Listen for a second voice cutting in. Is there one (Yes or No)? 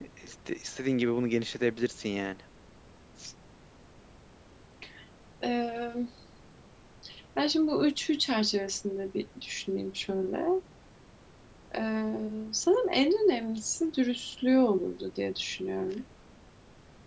No